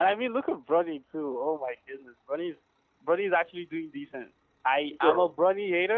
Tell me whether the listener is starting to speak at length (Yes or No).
No